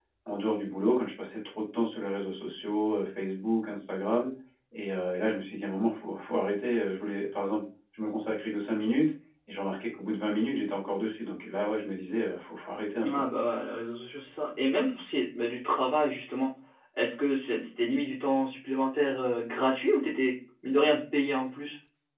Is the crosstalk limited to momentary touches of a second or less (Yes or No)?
Yes